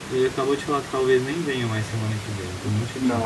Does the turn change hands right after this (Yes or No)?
Yes